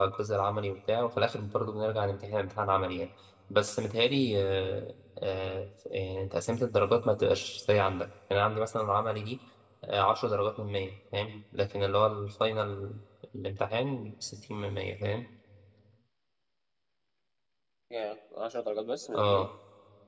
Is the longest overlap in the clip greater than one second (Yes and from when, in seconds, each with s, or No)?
No